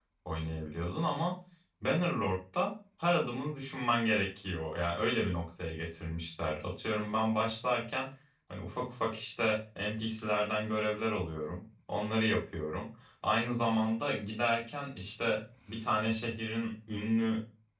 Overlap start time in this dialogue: none

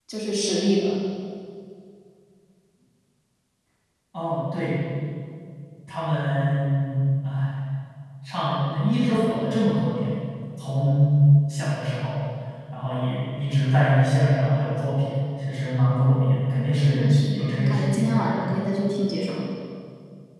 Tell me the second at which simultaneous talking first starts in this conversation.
17 s

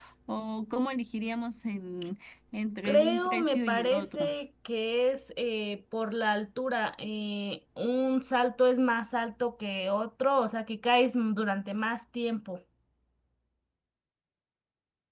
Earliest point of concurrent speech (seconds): 3 s

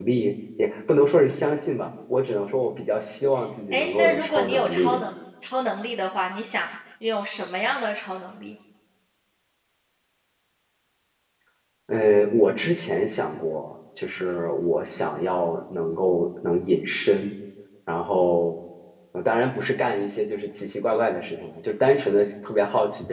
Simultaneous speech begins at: 4 s

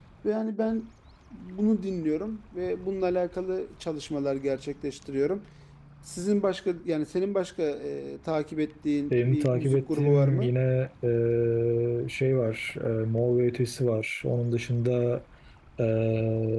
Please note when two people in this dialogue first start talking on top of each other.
9 s

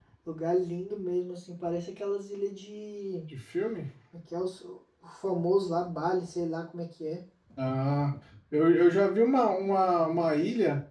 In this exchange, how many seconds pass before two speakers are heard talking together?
none

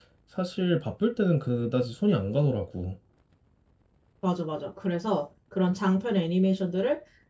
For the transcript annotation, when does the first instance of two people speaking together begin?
none

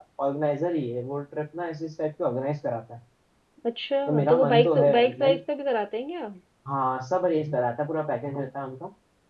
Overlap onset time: 4 s

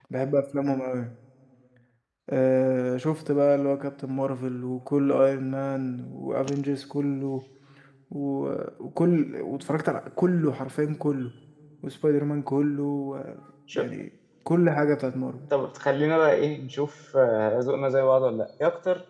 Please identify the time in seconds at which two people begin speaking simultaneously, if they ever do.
none

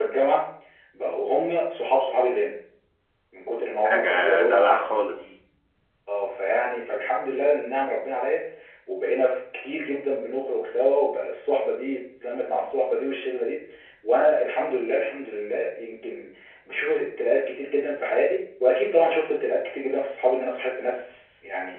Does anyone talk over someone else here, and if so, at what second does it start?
4 s

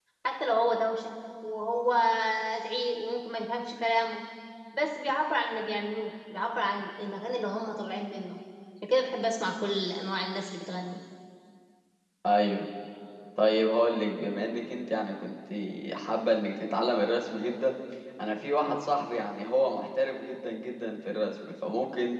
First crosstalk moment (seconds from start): none

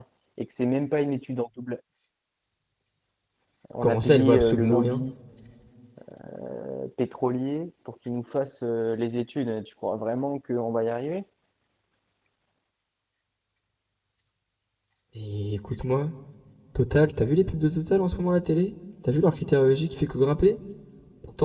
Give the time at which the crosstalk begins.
4 s

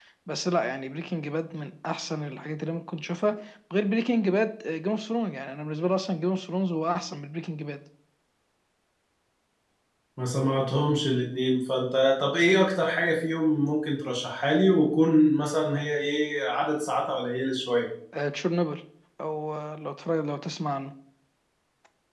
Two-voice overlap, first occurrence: none

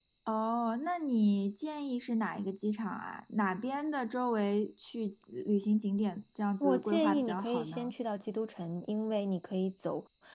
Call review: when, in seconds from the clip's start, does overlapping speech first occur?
7 s

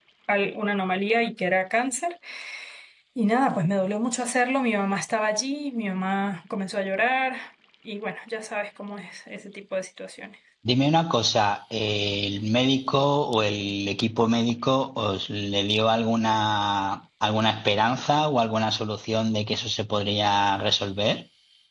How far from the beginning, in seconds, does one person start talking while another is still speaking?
none

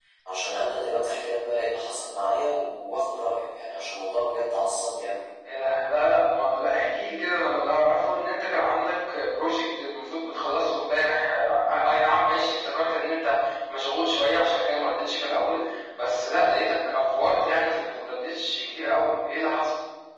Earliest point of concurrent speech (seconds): none

